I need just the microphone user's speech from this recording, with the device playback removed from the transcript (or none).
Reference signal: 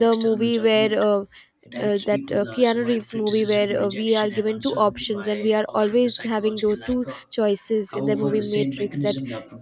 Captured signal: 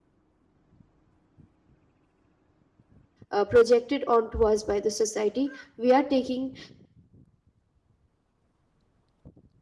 uh, projected onto us by the society we are taking